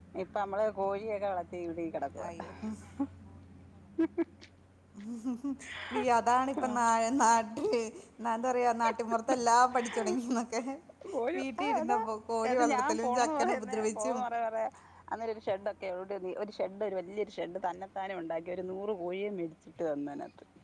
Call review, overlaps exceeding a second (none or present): present